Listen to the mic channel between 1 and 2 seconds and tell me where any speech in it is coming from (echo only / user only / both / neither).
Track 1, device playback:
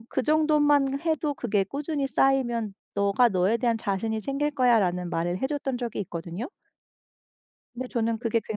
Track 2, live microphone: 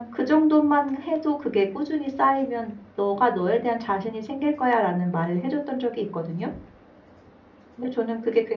echo only